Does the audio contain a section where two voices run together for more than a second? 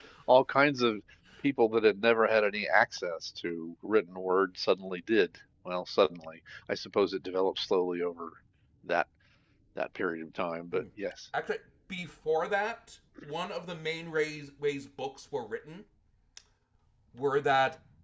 No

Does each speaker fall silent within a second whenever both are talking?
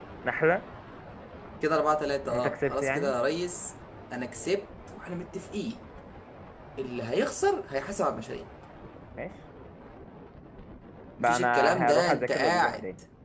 No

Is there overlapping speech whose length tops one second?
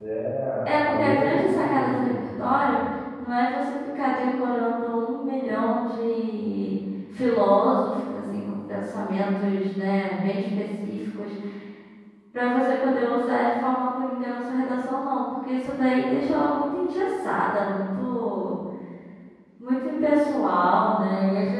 Yes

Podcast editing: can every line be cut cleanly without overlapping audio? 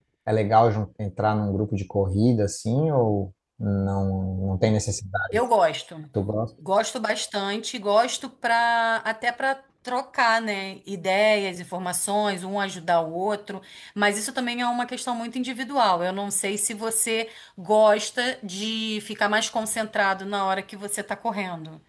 Yes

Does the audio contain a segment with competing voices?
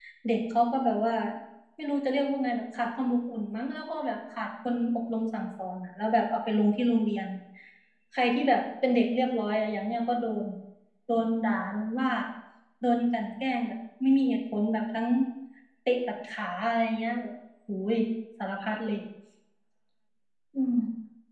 No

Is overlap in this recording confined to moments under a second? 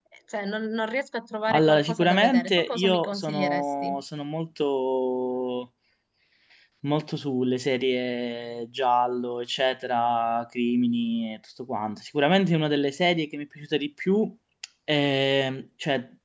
No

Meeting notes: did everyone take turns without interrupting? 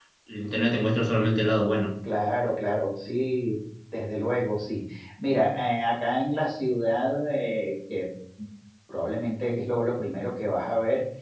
Yes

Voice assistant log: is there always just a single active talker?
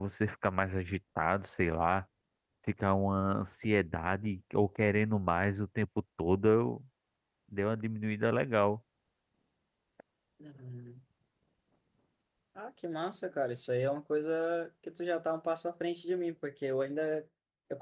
Yes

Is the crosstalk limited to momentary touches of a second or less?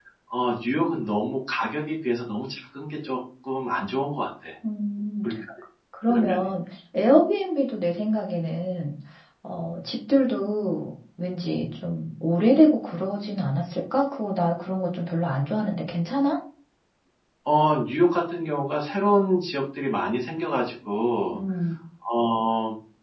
Yes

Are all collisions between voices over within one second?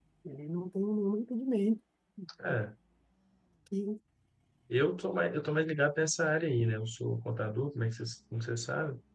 Yes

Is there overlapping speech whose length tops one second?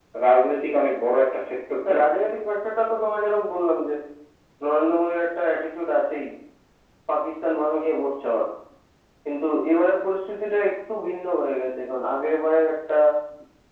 No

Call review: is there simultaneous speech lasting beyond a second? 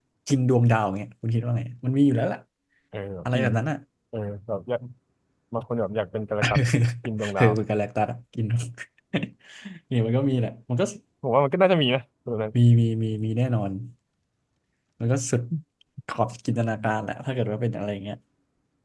No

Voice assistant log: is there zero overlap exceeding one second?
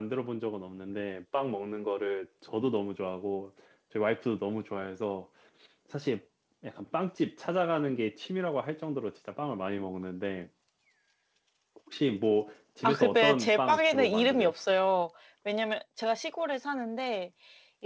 No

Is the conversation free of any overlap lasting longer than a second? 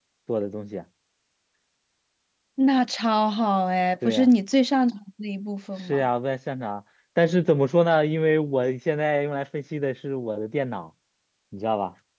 Yes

